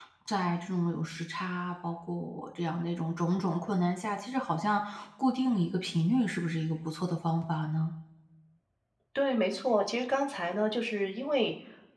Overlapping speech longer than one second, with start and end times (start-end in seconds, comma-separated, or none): none